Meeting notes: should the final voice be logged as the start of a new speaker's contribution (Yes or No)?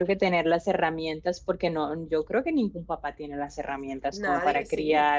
No